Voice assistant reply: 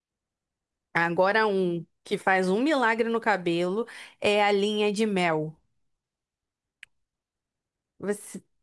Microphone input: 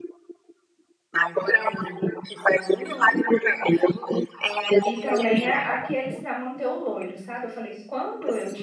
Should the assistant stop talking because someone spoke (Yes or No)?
Yes